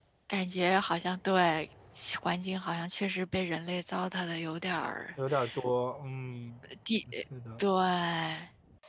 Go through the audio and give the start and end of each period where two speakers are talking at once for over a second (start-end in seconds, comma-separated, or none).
none